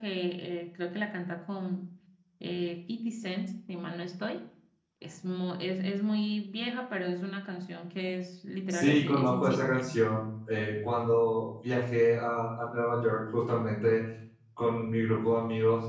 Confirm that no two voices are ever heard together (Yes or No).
No